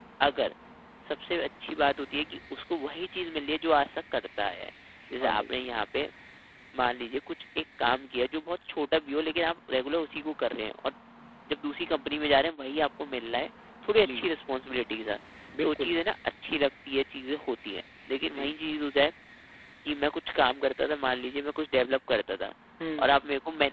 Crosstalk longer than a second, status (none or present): none